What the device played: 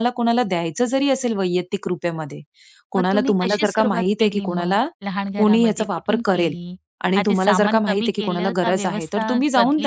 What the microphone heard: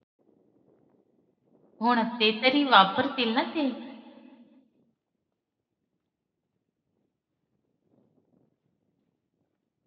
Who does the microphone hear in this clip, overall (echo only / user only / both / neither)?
user only